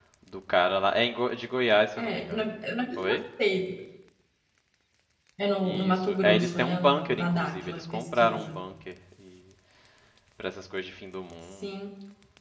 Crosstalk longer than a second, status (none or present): present